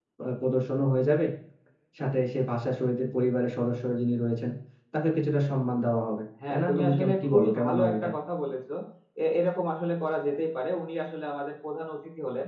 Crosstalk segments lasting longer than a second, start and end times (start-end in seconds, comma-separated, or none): 6.5-8.1